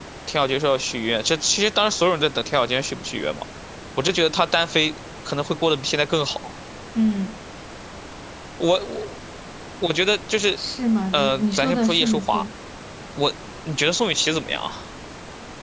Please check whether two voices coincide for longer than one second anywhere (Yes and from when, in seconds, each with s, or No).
Yes, from 11.1 s